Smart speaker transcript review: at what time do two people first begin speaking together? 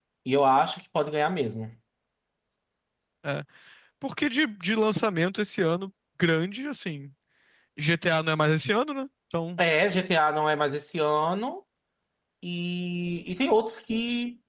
none

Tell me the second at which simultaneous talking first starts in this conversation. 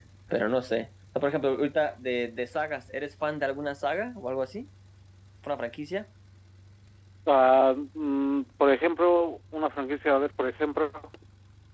none

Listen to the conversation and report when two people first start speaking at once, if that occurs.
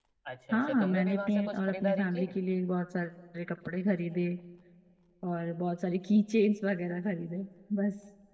1 s

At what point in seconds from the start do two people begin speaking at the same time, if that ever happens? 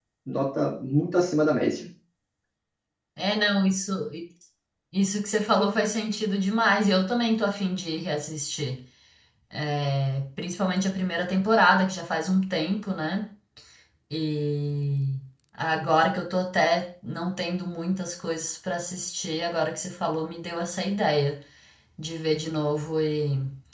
none

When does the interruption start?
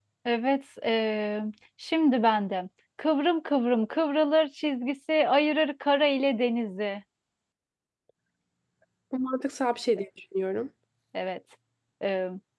none

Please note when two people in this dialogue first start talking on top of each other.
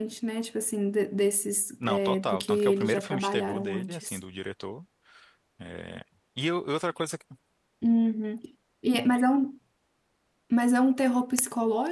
2 s

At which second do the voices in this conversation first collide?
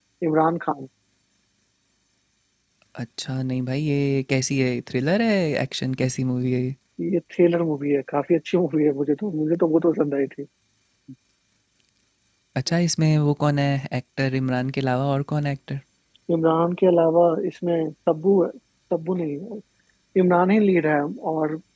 none

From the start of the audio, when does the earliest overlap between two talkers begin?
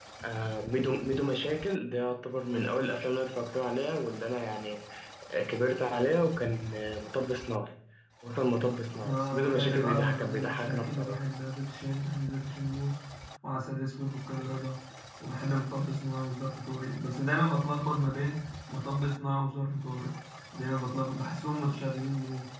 9 s

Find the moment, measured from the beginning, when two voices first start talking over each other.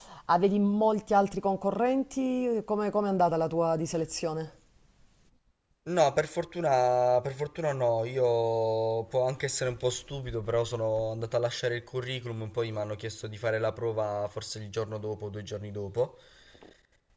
none

